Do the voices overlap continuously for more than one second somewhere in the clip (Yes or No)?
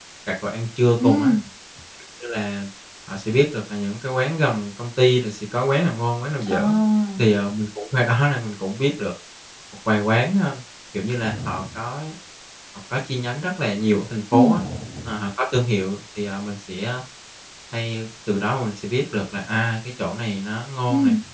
No